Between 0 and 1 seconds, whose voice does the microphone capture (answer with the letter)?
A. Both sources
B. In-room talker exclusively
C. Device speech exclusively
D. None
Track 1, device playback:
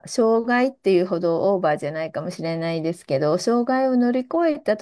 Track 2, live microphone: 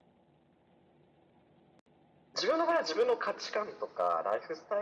D